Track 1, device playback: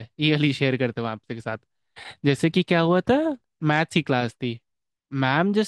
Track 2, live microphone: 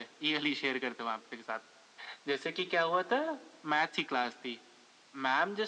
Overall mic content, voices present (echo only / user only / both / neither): echo only